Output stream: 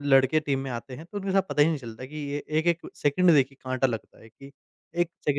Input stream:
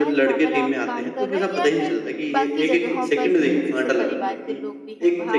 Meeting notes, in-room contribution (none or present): present